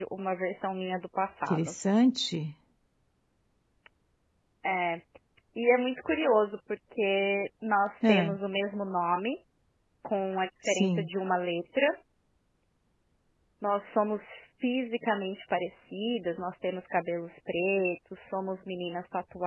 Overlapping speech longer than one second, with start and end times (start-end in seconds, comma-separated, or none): none